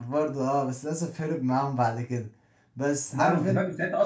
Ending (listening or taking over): taking over